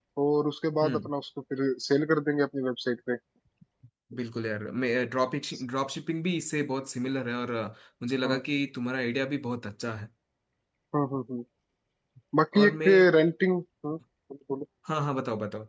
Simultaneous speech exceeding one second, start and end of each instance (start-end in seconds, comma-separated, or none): none